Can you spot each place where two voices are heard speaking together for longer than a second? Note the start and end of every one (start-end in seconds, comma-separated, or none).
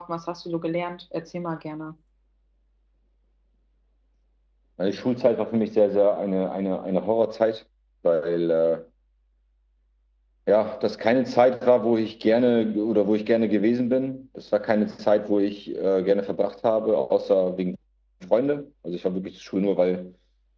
none